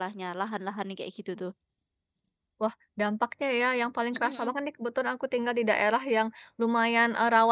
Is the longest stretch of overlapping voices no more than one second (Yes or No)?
Yes